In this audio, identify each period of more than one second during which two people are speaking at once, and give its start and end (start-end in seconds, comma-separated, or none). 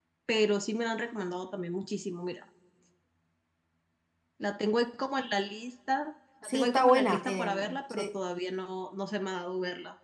6.4-8.1